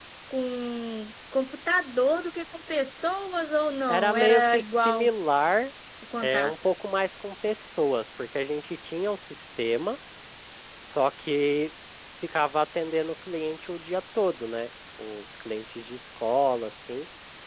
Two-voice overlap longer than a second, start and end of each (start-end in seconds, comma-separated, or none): 3.9-5.1